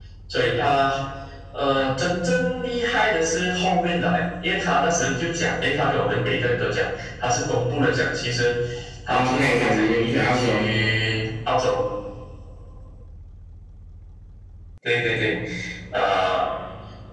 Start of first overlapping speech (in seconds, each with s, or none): 9.1 s